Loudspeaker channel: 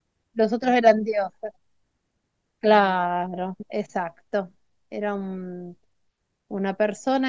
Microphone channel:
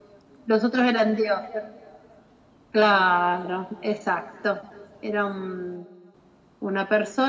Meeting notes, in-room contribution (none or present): none